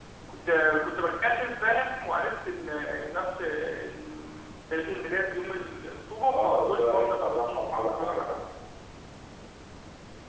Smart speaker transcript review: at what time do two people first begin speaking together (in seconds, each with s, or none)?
6.3 s